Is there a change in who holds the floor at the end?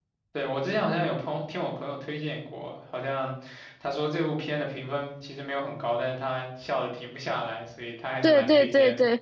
Yes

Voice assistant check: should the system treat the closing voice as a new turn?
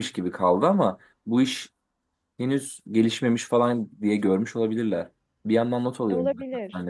Yes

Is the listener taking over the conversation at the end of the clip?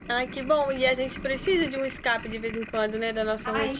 Yes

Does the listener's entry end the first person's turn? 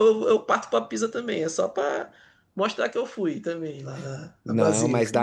Yes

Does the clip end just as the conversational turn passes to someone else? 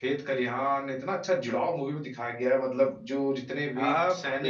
Yes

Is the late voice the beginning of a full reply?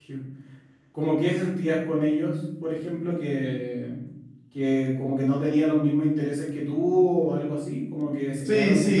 Yes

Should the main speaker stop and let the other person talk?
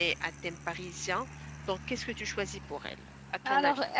Yes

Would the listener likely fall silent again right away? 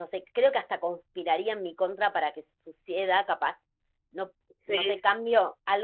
Yes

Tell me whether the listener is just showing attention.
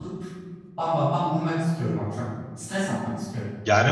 No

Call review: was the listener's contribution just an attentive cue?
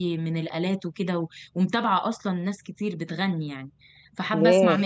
Yes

